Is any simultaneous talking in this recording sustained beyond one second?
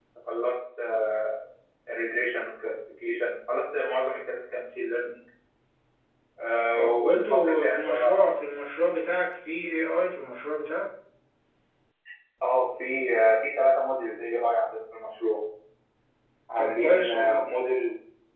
Yes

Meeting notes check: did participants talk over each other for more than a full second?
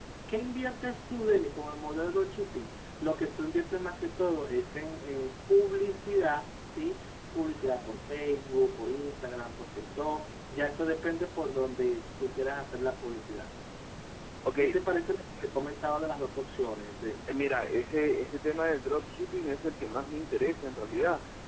No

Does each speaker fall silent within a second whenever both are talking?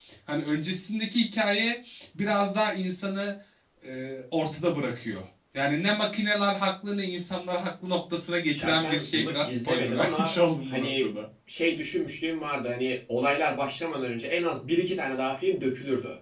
No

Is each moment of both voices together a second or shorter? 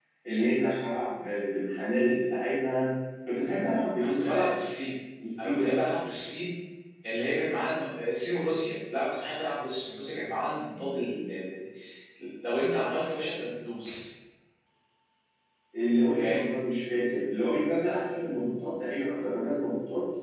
Yes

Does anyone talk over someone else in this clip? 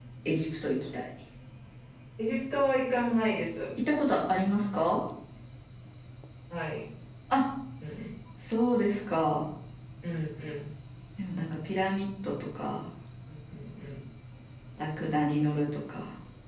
No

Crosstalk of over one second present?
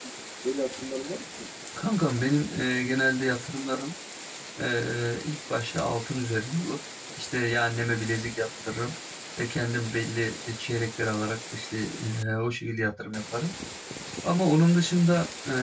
No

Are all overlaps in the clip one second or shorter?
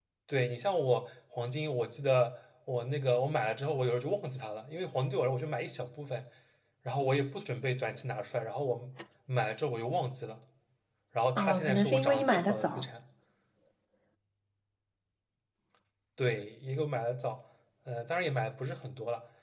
No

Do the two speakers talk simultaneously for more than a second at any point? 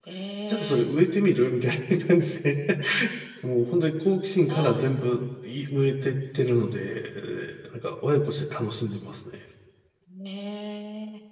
No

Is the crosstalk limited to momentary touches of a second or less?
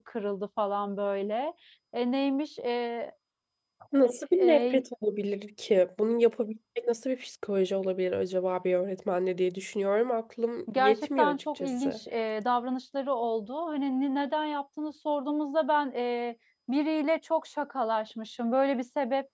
No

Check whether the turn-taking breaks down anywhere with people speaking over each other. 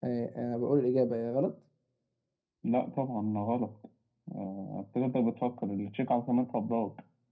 No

